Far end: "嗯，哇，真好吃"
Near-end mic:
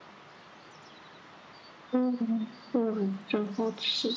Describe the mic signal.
echo only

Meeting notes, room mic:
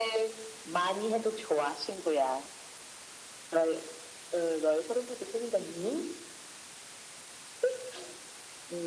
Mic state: echo only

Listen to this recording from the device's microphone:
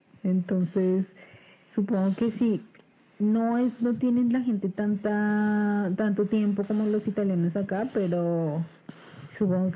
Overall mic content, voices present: echo only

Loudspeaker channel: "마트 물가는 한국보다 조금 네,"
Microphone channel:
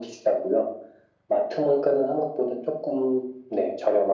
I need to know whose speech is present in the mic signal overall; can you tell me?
echo only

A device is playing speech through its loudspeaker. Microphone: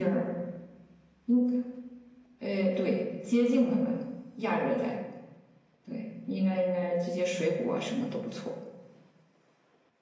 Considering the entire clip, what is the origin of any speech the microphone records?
echo only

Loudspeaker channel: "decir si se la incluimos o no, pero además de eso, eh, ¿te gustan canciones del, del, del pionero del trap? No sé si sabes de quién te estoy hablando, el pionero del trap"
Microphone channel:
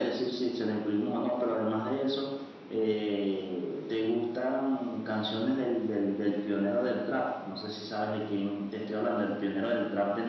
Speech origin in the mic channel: echo only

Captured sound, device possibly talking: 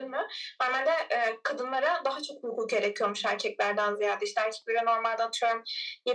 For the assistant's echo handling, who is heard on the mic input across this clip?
echo only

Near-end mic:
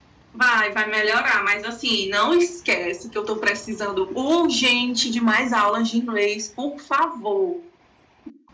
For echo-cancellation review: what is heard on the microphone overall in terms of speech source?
echo only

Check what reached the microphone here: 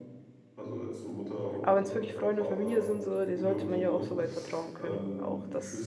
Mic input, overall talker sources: both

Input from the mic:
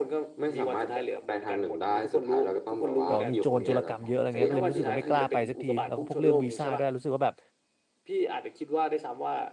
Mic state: both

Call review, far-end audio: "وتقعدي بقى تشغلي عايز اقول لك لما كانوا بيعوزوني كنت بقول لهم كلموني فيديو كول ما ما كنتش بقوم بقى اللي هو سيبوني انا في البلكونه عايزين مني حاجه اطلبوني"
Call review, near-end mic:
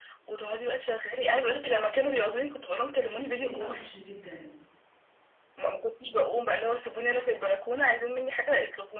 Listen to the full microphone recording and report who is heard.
both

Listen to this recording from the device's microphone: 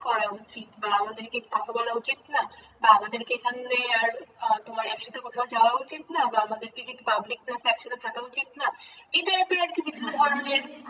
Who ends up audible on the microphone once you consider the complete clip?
both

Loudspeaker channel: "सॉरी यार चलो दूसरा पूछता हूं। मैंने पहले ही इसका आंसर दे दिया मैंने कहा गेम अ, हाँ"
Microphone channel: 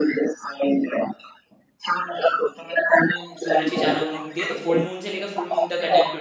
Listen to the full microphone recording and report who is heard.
both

